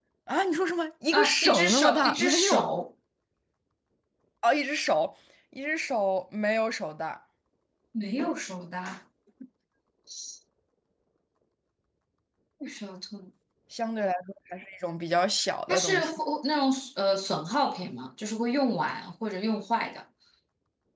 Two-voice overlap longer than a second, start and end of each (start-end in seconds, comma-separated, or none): 1.1-2.6